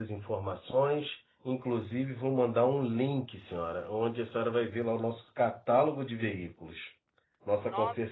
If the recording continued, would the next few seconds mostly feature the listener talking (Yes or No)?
No